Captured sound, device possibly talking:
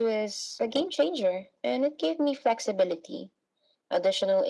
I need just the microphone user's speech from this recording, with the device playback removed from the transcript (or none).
none